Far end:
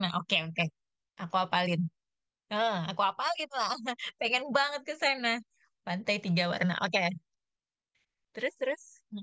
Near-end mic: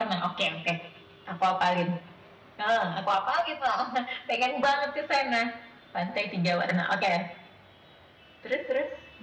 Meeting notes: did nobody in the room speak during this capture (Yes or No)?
Yes